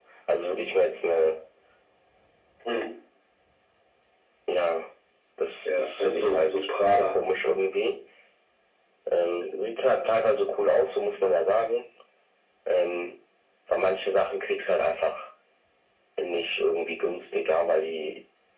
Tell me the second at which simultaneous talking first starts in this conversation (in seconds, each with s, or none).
5.7 s